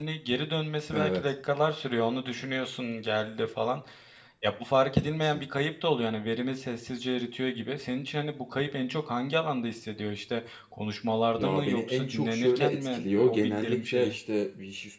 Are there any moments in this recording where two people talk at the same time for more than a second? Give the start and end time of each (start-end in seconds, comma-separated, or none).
11.4-14.2